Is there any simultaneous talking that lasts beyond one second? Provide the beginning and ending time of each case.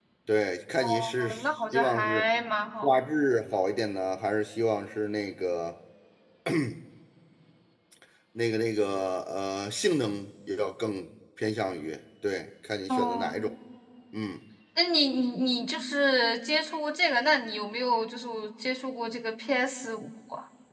0.8-2.3

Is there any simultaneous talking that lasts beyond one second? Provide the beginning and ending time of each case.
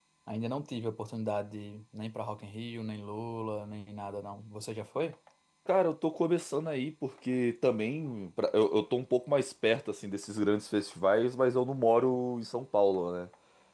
none

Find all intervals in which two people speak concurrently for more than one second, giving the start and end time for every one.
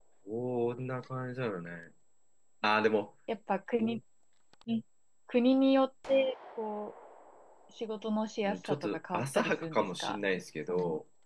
8.4-10.2

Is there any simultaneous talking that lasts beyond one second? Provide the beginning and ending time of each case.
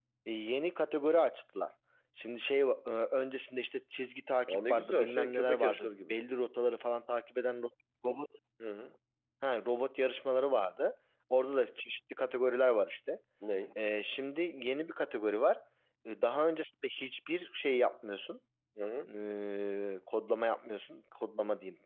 4.5-6.1

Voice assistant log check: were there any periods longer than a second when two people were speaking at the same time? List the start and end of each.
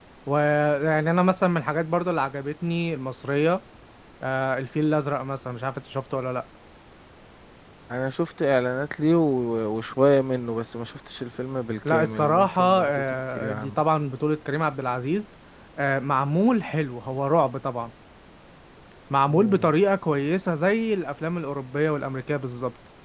11.8-13.8

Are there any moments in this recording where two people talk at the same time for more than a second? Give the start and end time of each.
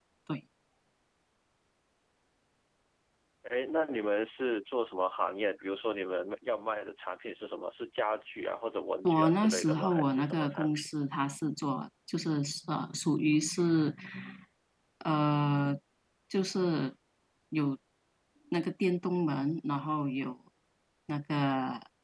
9.0-10.9

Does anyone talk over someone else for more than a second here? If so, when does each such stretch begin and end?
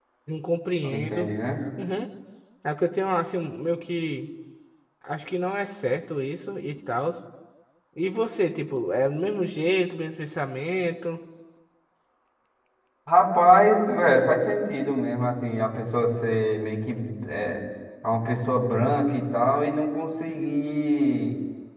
none

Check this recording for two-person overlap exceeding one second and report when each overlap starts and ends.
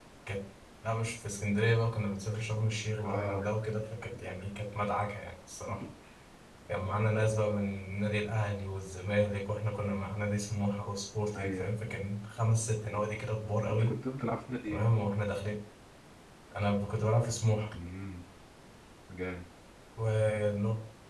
none

